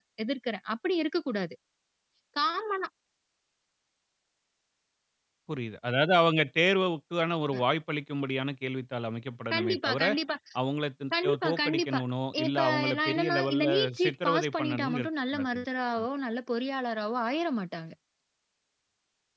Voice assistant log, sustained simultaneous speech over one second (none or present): present